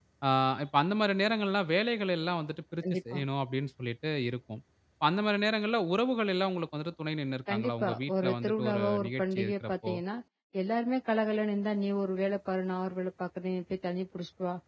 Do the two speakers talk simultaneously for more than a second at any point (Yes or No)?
Yes